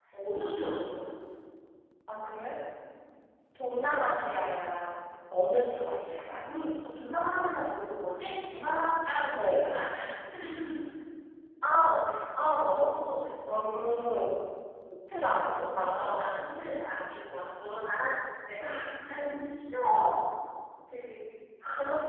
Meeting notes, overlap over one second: none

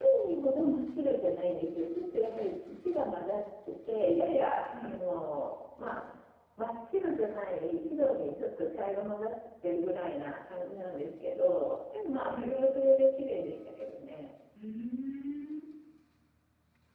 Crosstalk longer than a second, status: none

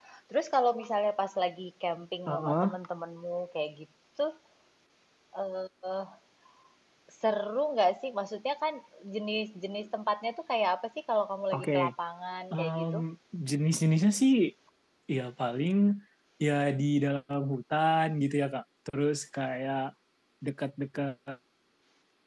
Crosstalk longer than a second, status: none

